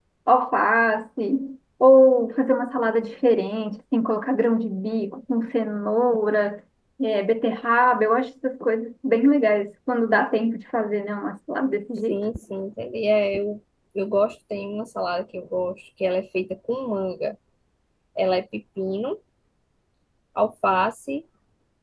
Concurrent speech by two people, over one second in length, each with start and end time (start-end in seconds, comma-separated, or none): none